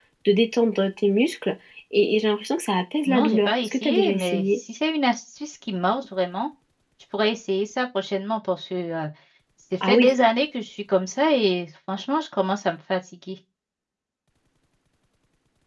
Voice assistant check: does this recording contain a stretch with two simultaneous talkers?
Yes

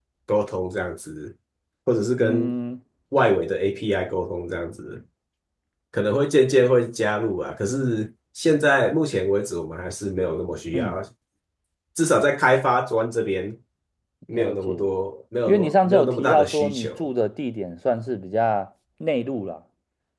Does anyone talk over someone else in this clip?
Yes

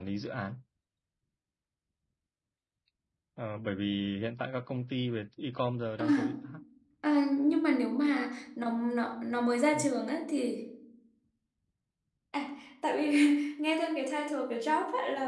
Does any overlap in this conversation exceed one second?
No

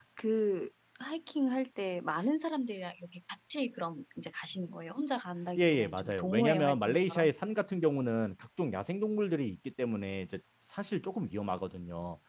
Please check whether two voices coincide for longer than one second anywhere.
Yes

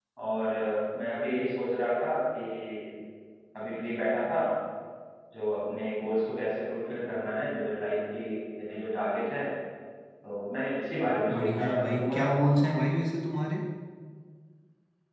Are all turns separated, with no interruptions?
No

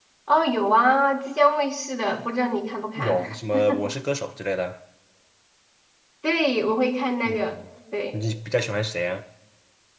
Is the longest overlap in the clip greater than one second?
No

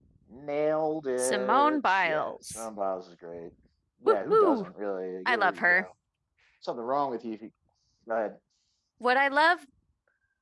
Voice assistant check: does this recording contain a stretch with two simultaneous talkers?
Yes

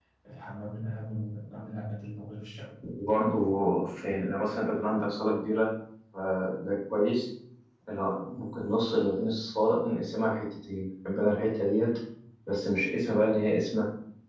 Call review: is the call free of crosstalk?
Yes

